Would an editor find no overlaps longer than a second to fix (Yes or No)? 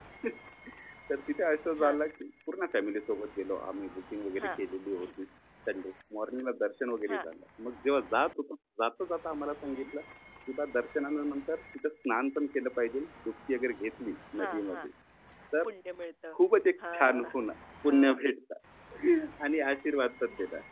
Yes